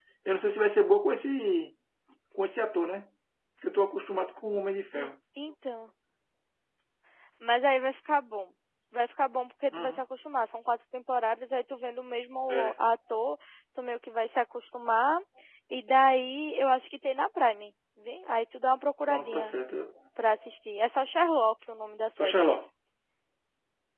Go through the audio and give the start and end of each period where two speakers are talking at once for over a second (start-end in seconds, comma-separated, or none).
none